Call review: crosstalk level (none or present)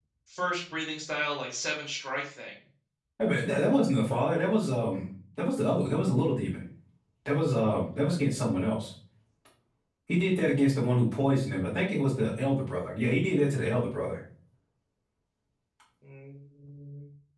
none